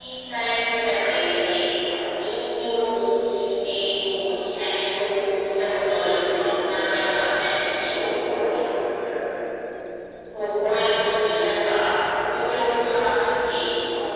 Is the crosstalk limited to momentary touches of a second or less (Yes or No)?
Yes